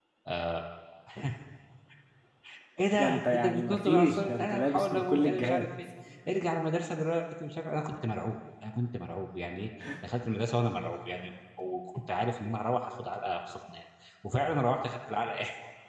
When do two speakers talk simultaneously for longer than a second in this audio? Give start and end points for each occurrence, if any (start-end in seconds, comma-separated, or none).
3.0-5.7